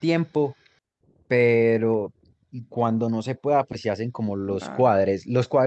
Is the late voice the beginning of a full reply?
No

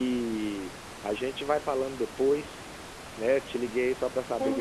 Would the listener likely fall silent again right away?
No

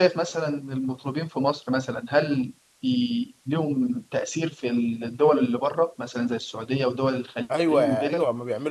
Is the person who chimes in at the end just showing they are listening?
No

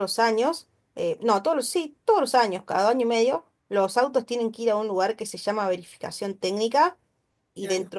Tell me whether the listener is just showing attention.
Yes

